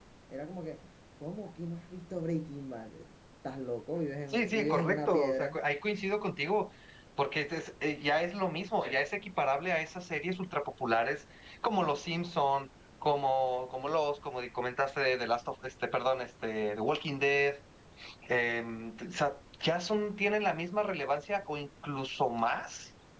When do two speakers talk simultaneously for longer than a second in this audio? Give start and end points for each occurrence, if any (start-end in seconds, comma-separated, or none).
4.3-5.6